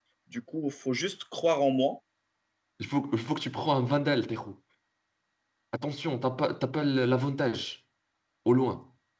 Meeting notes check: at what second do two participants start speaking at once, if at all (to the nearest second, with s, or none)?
none